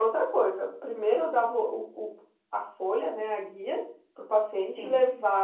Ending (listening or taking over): listening